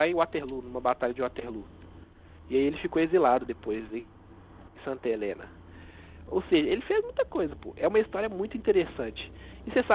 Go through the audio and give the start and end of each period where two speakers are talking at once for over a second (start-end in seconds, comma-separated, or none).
none